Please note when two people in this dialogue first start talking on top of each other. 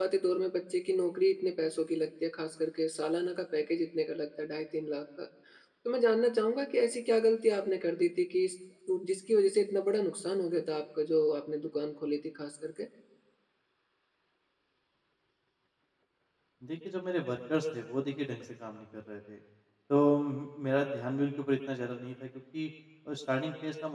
none

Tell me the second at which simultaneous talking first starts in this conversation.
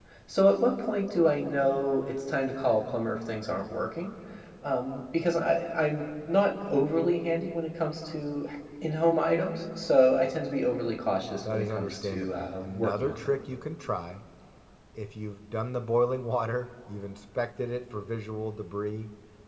11 s

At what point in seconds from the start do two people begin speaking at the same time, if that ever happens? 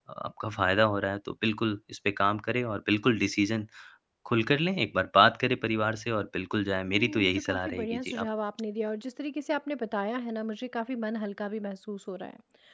7 s

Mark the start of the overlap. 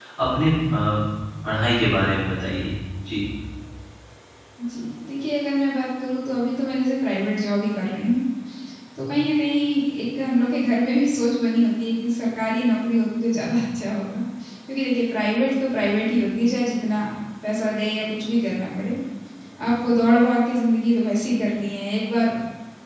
none

